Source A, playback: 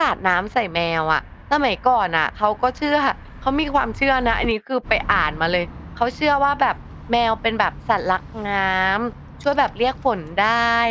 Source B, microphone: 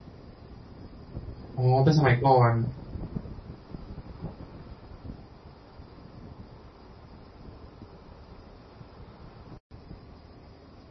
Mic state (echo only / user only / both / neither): user only